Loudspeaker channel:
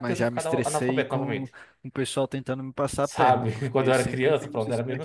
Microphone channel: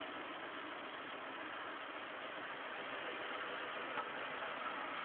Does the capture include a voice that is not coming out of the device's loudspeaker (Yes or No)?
No